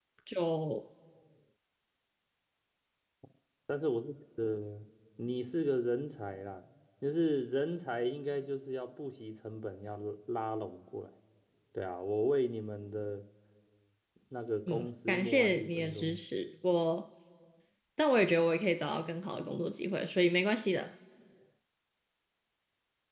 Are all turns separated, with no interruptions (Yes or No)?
No